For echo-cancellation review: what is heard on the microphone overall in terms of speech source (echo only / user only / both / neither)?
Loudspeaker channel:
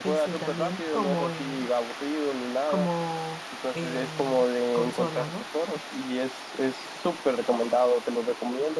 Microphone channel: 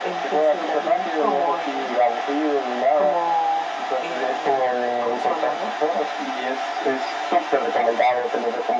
echo only